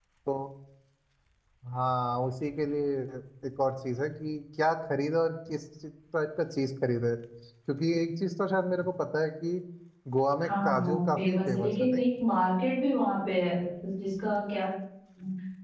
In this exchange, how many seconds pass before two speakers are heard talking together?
10.5 s

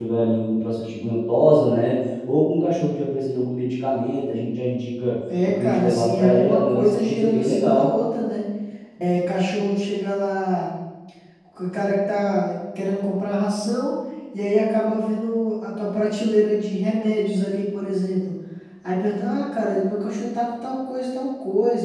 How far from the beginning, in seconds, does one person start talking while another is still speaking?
5.3 s

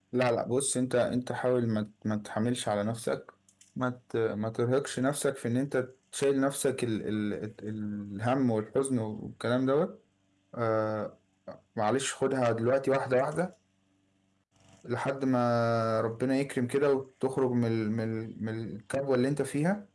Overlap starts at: none

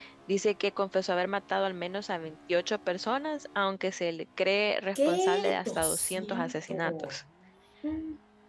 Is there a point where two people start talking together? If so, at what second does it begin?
5.0 s

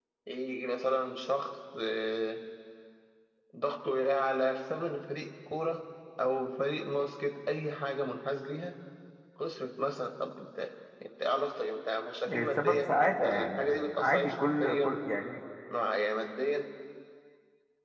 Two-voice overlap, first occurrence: 12.5 s

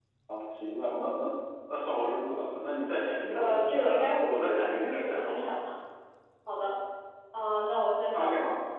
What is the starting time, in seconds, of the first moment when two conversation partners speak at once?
3.3 s

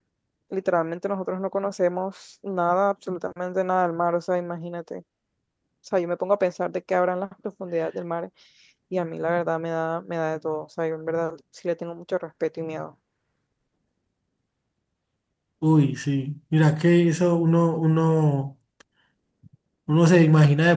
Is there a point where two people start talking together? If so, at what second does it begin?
none

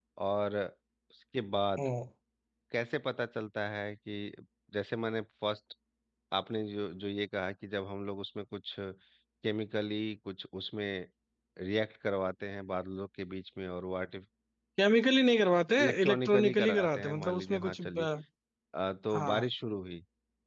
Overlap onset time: 15.8 s

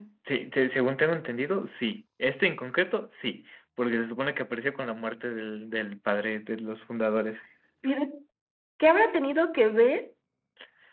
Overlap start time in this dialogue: none

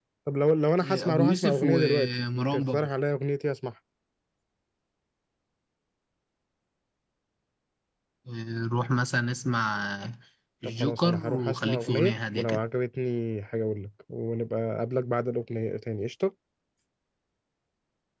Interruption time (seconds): 0.8 s

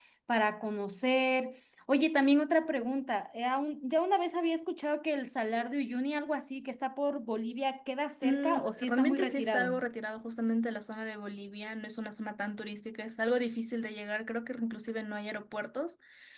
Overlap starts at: 8.2 s

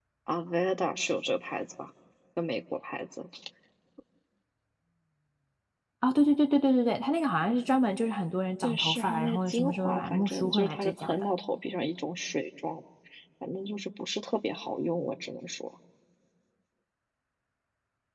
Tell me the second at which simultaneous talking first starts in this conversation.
8.6 s

